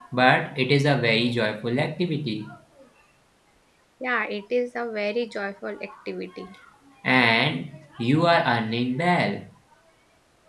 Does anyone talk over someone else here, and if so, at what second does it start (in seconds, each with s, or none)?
none